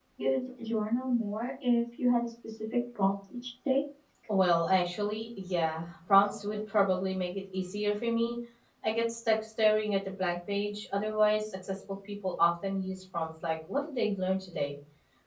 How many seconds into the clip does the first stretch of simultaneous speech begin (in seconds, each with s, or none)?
none